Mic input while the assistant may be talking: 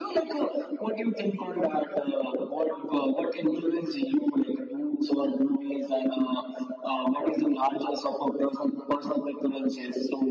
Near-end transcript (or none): none